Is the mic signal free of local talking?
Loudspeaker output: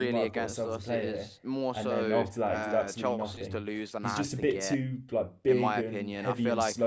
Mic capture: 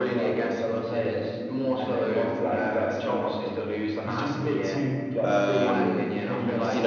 No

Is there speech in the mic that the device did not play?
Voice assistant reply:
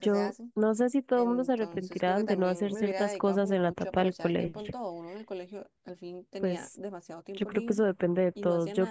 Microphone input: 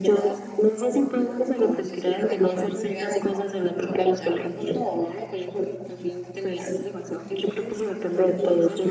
Yes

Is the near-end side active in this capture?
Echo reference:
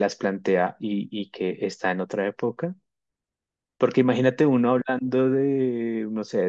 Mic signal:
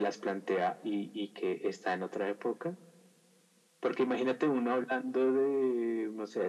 No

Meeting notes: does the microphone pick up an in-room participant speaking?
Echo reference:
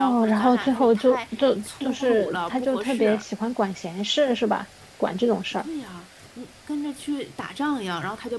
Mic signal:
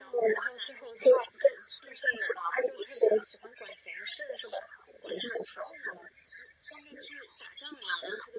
No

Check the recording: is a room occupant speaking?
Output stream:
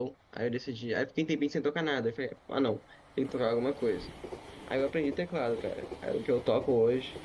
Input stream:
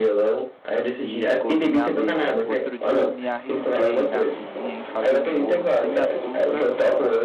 Yes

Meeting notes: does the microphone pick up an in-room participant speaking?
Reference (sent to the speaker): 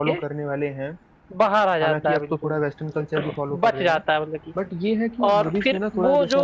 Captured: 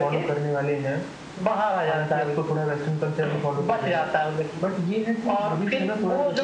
No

